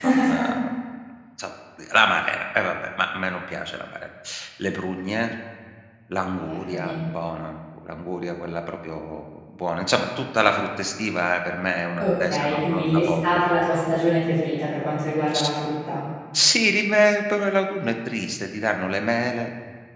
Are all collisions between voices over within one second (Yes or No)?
No